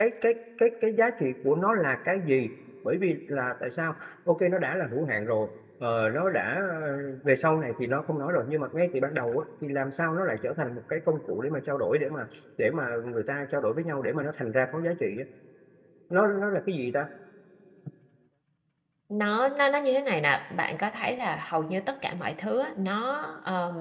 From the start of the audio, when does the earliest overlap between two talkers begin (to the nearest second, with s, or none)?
none